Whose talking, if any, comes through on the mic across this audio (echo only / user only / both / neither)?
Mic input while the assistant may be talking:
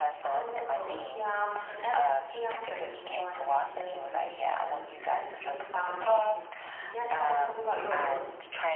both